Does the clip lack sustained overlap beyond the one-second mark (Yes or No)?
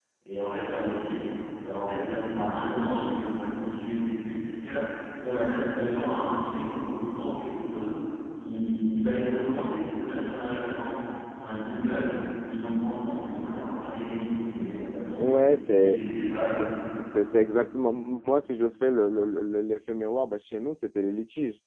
Yes